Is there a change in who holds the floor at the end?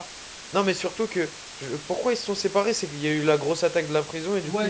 Yes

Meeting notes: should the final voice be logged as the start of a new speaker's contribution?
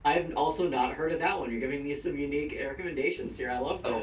Yes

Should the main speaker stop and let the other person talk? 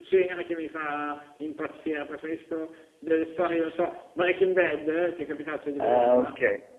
Yes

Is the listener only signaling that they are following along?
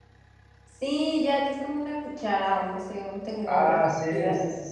No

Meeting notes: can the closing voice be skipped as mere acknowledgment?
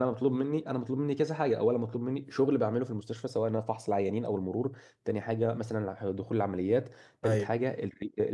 Yes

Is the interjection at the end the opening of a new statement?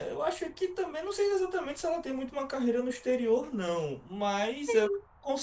No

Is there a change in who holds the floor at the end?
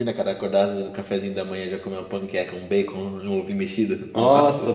Yes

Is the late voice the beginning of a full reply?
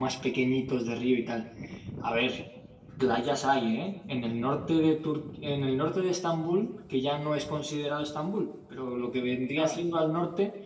No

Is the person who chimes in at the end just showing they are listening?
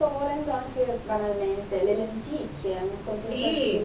No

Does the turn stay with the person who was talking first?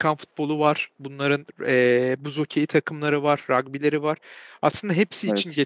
Yes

